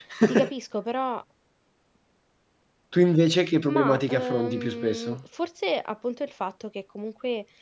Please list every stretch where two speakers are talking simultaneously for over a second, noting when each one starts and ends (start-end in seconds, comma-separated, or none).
3.7-5.2